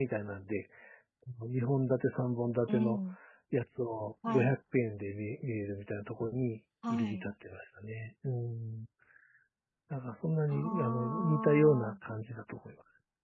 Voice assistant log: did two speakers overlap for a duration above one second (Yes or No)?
Yes